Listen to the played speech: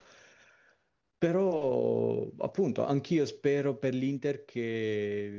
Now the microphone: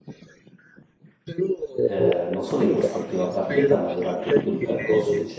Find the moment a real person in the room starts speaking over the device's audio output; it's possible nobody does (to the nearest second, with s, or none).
2 s